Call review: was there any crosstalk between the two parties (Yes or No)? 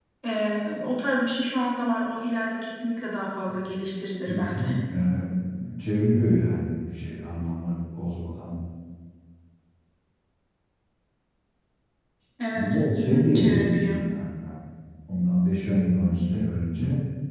Yes